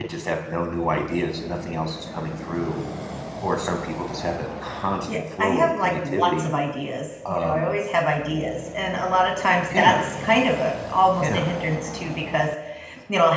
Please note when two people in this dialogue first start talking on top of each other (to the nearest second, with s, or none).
5 s